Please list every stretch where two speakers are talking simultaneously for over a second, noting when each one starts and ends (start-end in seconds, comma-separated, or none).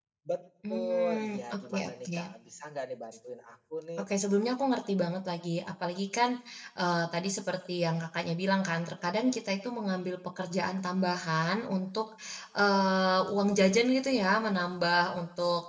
0.7-2.2